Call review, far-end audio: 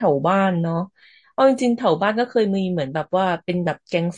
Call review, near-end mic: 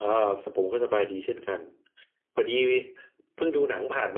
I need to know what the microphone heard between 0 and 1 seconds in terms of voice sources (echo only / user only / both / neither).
user only